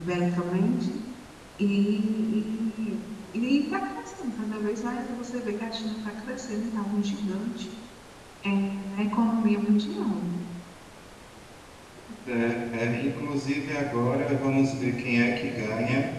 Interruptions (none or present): none